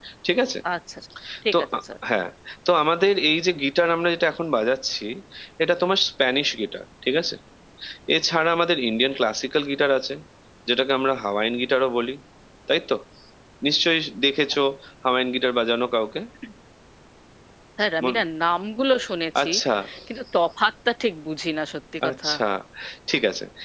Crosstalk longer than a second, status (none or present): none